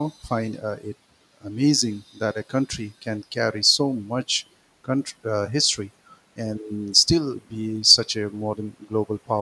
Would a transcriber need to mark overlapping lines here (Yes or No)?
No